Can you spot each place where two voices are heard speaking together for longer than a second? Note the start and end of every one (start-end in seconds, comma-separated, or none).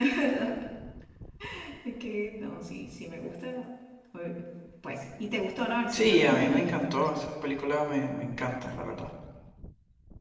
5.9-7.1